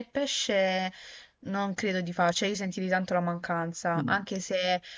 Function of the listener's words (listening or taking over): listening